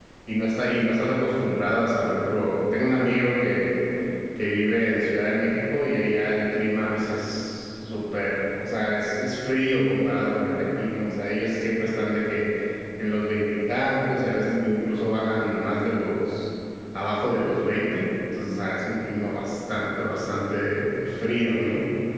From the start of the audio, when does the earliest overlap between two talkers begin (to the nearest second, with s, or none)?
none